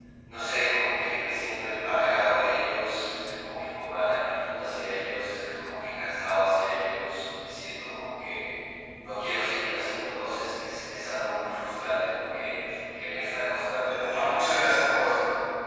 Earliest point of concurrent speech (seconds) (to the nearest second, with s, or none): 14 s